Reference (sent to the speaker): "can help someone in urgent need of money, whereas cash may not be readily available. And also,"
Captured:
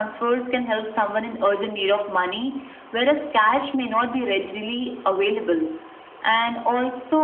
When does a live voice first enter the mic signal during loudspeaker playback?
none

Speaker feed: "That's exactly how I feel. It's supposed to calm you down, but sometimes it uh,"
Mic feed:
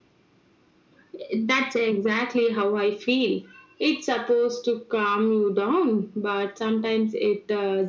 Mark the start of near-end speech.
none

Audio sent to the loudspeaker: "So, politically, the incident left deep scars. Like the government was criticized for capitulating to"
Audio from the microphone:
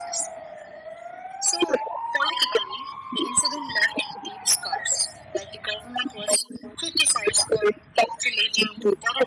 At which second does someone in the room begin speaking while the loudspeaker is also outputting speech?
none

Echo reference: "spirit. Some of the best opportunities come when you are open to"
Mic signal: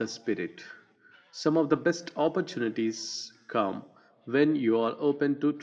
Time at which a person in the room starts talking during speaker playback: none

